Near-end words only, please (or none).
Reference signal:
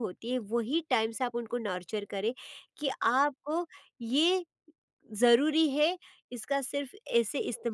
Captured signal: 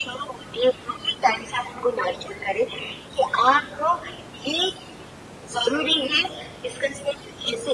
none